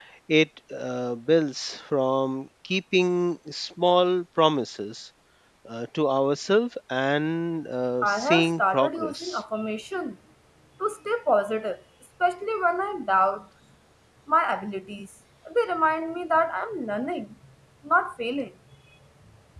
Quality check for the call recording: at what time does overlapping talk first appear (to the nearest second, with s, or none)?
8 s